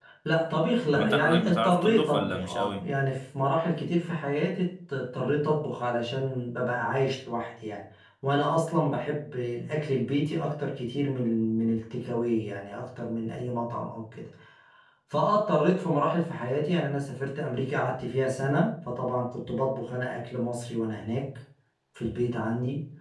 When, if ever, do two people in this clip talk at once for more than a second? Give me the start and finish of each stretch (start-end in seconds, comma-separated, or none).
0.9-2.9